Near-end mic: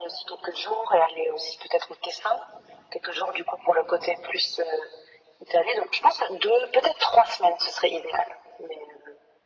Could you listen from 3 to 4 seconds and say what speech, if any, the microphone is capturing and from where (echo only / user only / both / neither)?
echo only